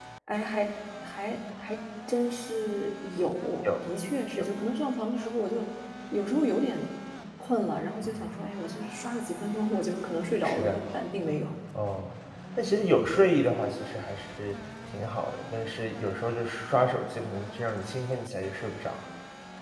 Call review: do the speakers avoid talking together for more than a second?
Yes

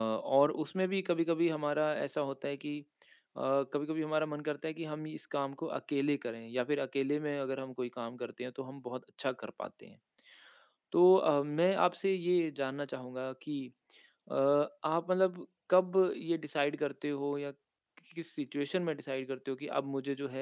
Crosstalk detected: No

